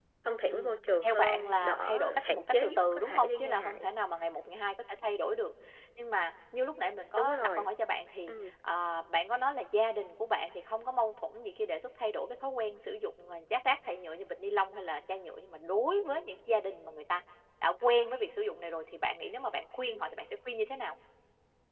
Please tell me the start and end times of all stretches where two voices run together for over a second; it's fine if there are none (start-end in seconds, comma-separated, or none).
0.5-3.7